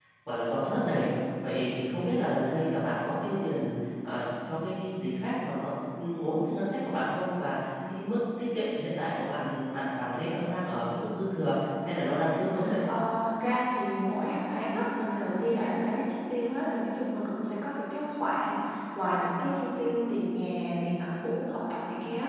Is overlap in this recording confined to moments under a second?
Yes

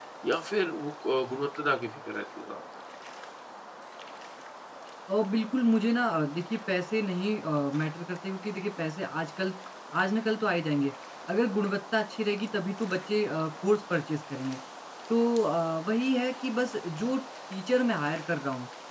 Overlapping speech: No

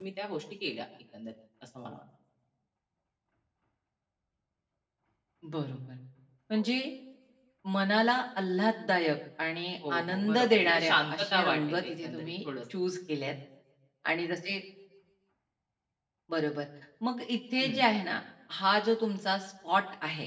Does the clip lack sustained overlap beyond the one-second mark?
No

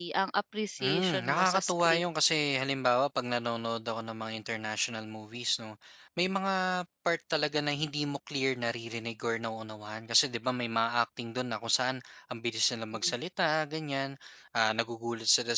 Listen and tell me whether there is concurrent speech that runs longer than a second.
Yes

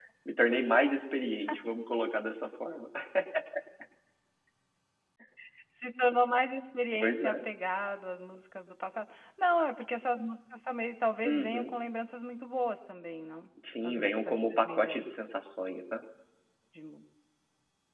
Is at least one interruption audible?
Yes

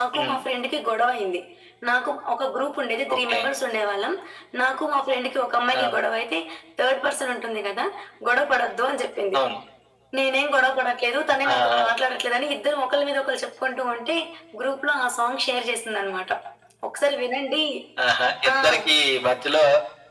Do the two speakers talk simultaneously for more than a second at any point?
No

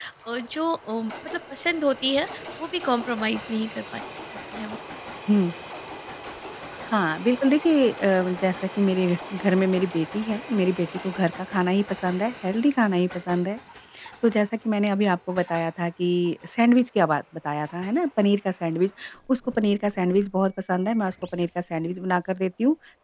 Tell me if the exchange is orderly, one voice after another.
Yes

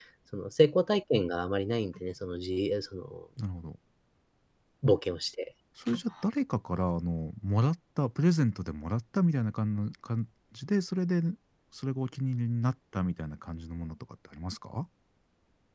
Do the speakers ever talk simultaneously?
No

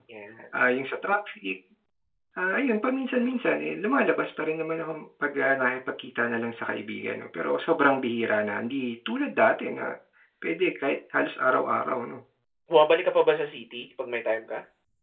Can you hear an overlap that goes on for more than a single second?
No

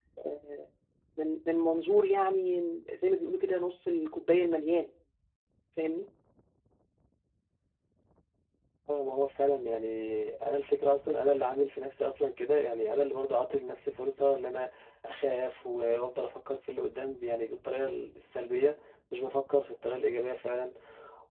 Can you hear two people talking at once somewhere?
No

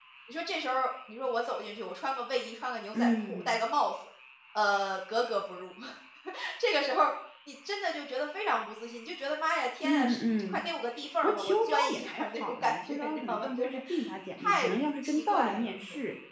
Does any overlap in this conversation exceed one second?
Yes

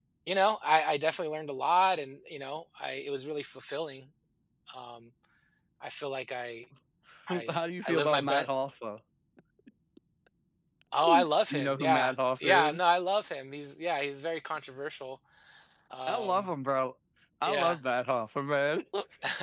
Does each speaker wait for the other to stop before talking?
No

